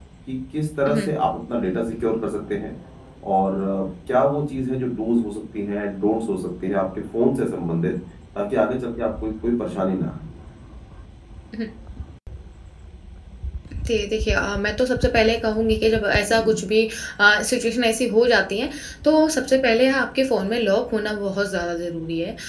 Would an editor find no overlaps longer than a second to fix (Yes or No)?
Yes